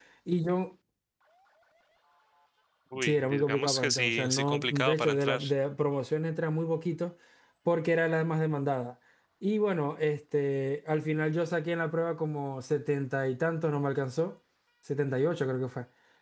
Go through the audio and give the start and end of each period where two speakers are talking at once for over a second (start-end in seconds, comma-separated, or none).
3.0-5.4